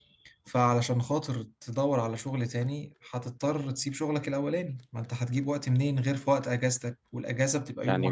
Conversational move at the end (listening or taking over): taking over